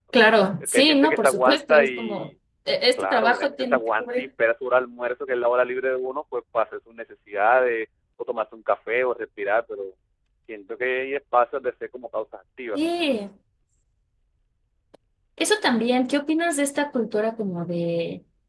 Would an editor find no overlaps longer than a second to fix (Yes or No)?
No